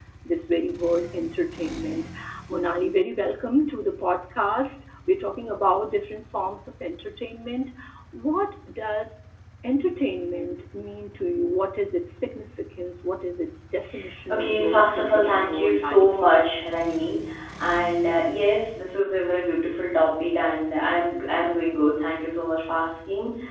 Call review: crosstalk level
present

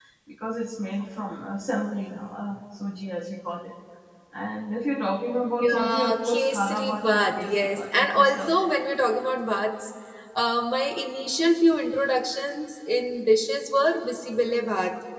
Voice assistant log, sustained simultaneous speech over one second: present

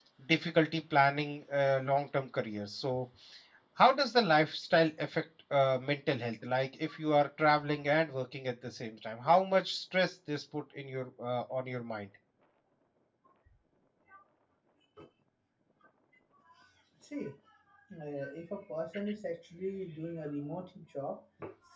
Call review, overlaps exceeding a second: none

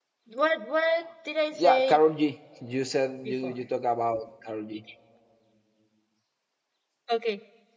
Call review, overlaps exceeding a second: none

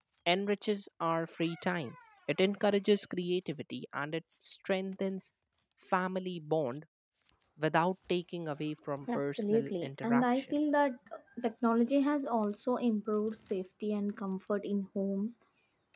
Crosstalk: present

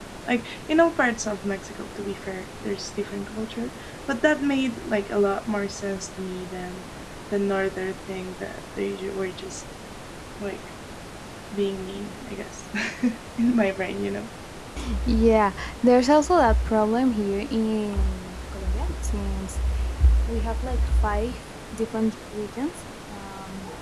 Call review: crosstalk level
none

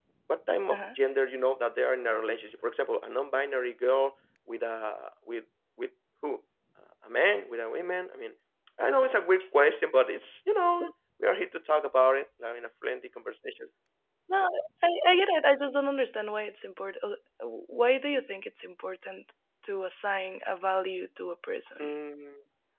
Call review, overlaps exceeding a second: none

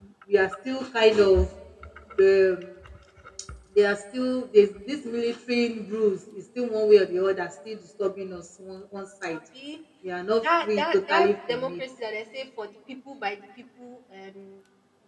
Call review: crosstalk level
present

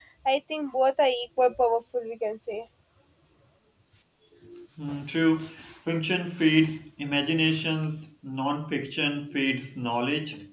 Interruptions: none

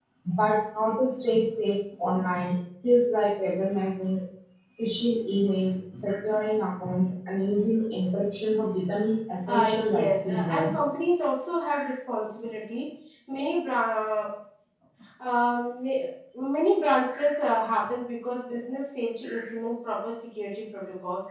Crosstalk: present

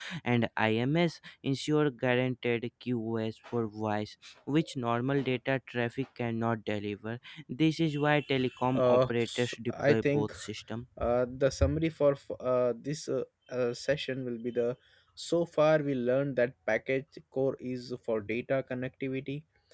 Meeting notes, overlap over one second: present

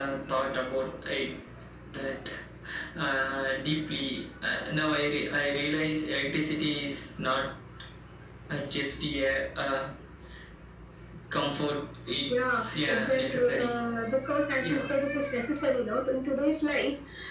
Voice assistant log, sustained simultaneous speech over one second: present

